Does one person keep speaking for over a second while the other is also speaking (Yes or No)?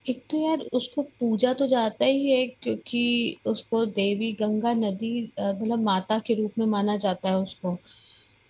No